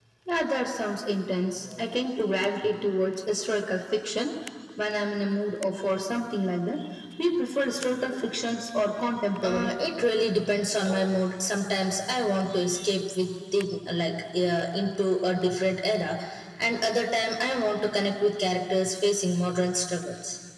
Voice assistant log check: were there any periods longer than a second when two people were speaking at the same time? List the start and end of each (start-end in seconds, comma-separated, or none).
none